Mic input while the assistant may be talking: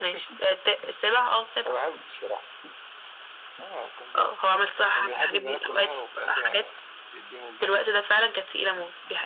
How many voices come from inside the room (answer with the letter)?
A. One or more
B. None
B